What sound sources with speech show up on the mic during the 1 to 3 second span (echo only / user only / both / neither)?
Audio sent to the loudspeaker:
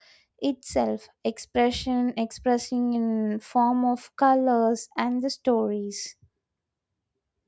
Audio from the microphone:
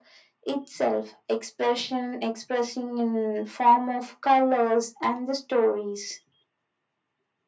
echo only